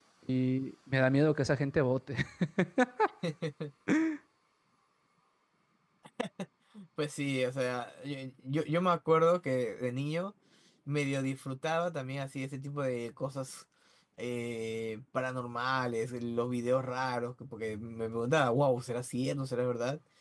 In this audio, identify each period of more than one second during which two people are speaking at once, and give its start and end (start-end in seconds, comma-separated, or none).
none